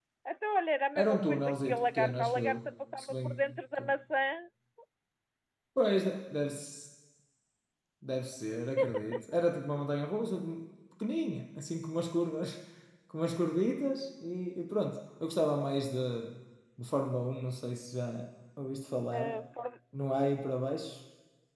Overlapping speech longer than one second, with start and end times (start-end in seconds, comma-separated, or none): 1.0-3.8